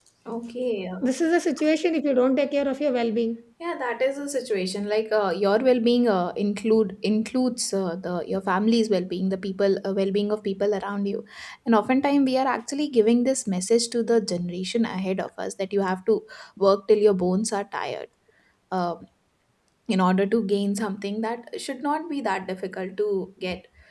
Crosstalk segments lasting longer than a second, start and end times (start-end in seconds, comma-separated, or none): none